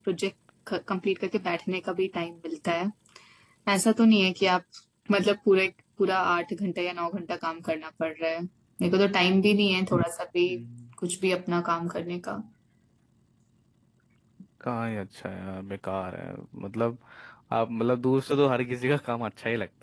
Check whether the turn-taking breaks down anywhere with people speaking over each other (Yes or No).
No